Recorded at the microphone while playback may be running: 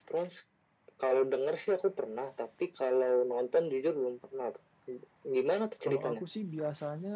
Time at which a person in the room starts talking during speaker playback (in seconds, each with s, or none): 5.8 s